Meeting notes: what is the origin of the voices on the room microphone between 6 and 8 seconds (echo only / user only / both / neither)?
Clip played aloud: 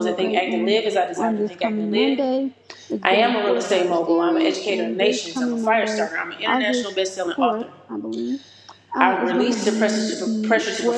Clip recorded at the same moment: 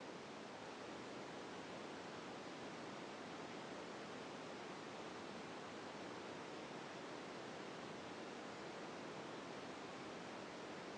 neither